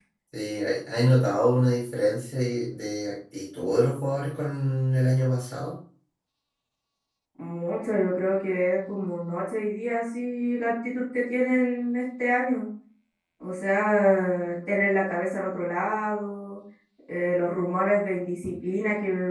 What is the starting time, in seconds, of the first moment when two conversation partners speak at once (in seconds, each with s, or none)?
none